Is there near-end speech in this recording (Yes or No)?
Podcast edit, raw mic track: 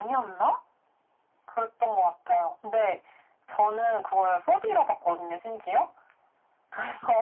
No